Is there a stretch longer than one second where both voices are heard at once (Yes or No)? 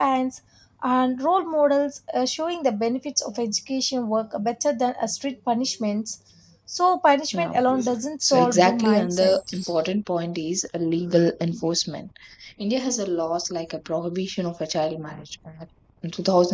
Yes